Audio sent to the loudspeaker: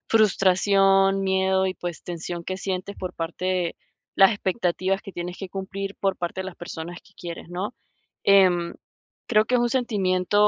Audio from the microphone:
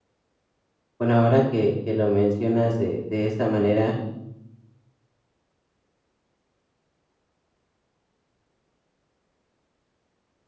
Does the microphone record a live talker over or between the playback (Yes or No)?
Yes